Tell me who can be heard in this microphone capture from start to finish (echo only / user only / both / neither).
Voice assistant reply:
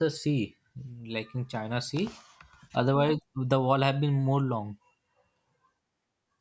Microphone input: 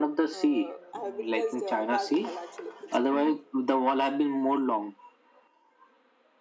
both